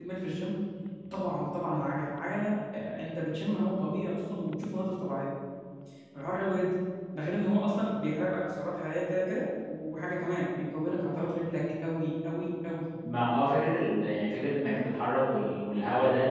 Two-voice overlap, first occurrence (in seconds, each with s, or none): none